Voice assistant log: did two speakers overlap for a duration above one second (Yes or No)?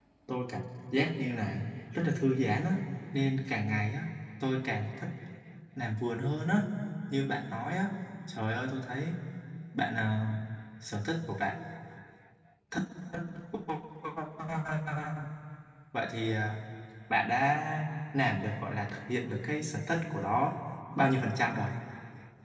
No